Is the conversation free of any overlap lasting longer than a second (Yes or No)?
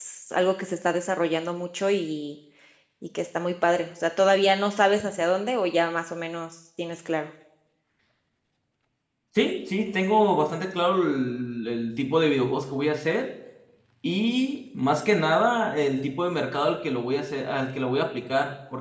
Yes